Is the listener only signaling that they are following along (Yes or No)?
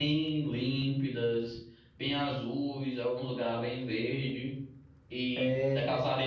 Yes